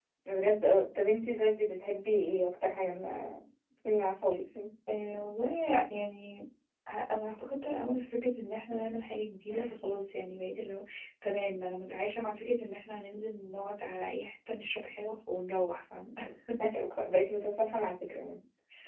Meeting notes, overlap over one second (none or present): none